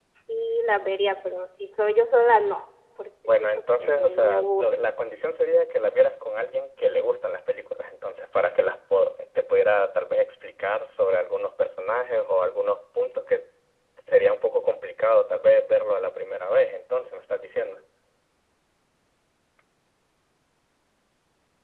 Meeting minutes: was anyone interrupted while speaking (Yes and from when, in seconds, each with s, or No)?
Yes, from 3.3 s